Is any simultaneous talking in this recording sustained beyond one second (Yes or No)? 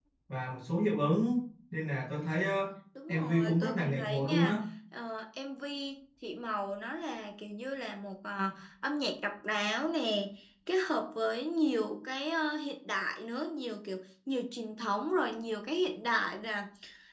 Yes